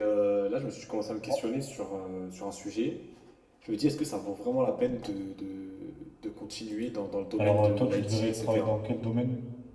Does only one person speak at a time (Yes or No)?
No